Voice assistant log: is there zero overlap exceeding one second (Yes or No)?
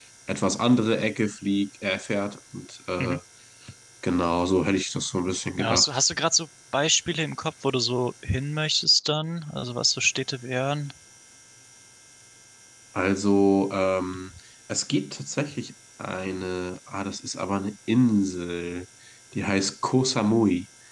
Yes